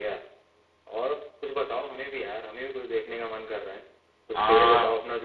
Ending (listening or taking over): listening